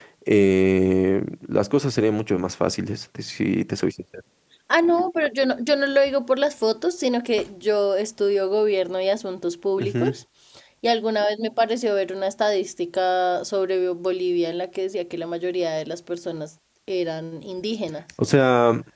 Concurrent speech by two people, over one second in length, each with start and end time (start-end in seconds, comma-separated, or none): none